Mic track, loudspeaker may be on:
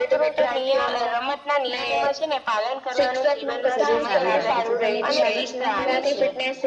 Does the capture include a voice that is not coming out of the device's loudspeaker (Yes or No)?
Yes